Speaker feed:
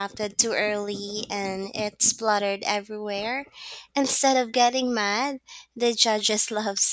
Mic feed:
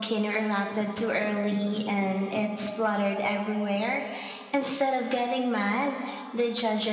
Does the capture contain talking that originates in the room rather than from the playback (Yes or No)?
No